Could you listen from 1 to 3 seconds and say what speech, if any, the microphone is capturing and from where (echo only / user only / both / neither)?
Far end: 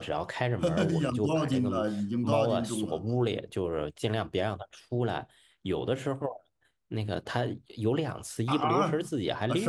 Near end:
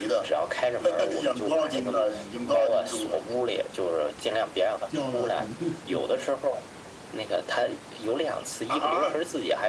echo only